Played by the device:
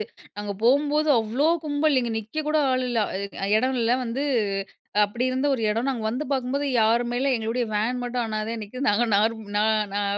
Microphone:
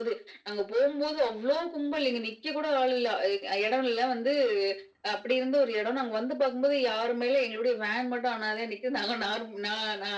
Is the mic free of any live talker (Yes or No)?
Yes